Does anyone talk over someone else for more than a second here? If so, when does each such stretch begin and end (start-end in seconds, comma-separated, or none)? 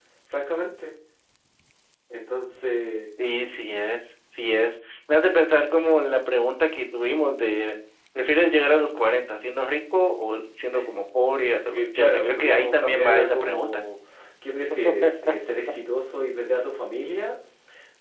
11.7-13.8